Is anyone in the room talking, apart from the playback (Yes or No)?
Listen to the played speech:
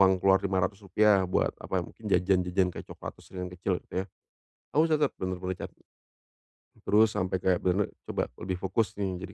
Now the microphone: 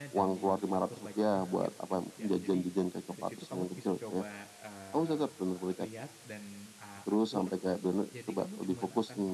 Yes